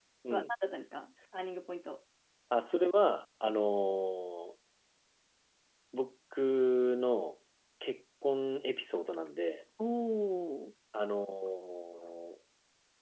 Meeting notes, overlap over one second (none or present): none